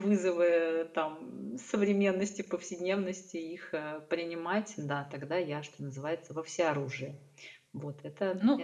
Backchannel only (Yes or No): No